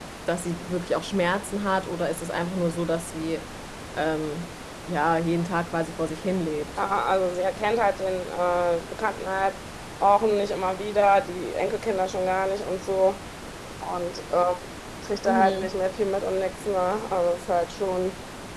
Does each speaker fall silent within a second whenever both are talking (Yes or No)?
Yes